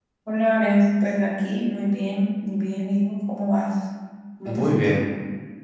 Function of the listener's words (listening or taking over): taking over